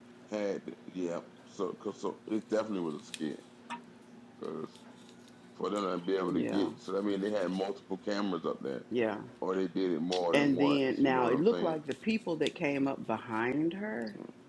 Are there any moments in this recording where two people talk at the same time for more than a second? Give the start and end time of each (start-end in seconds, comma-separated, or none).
10.3-11.8